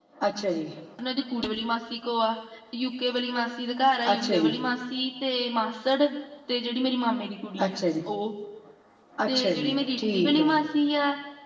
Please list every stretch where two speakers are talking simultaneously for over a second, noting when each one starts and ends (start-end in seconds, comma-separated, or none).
9.3-10.6